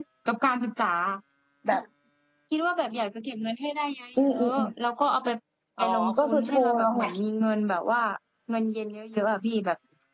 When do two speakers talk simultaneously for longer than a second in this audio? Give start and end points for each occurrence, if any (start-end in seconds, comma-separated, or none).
5.8-7.0